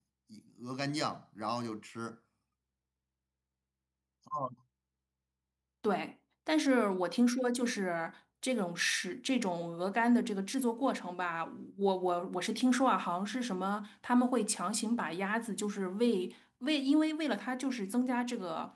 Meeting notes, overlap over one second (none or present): none